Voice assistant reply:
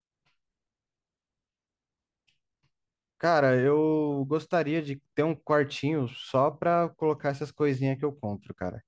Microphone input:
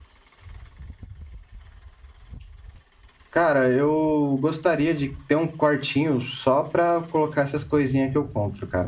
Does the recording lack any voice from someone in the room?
Yes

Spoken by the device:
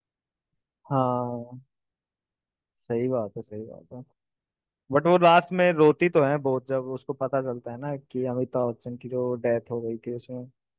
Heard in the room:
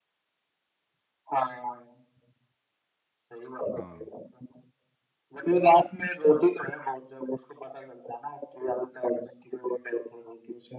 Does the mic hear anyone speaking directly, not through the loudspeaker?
Yes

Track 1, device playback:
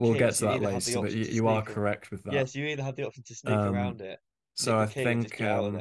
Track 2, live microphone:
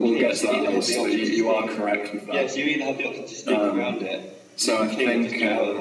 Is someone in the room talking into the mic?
No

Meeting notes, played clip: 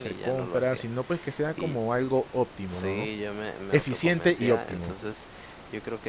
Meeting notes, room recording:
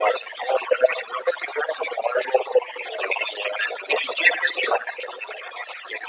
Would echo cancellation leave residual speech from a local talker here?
No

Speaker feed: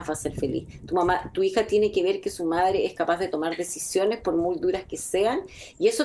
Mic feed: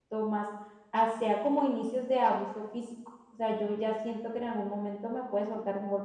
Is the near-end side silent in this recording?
No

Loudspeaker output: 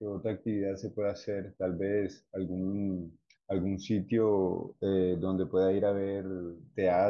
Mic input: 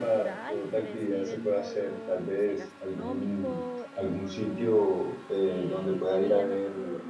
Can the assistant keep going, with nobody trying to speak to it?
No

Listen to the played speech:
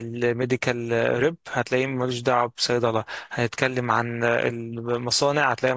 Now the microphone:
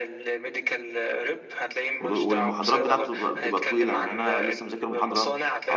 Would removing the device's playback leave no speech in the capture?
No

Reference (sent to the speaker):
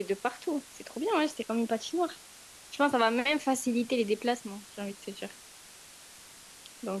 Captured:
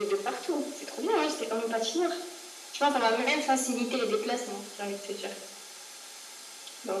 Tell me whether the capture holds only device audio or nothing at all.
Yes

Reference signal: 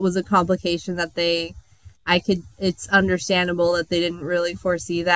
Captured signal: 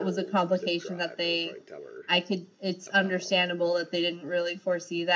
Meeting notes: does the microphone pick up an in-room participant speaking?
Yes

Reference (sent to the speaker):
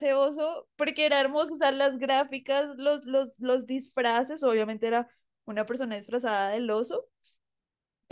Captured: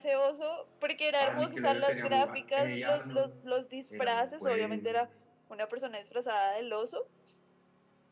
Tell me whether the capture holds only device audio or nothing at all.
No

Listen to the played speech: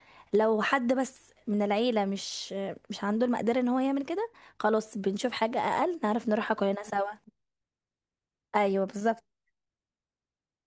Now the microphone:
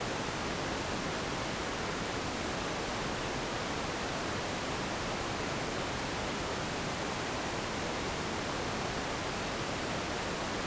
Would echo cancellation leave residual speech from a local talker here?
No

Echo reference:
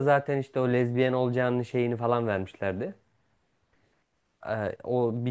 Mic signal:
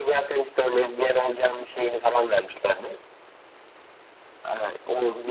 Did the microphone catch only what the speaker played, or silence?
Yes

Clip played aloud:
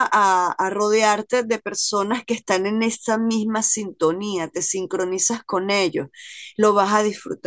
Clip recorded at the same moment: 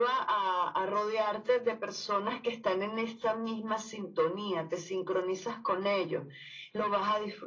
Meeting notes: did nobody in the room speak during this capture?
Yes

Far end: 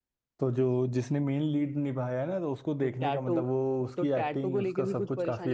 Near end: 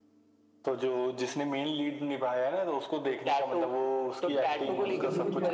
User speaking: Yes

